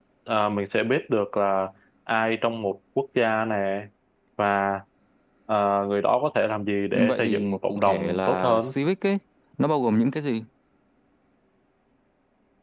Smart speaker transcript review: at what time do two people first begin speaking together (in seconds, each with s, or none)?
6.9 s